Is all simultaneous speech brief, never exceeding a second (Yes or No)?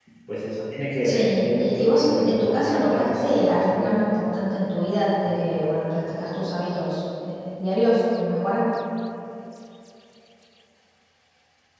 No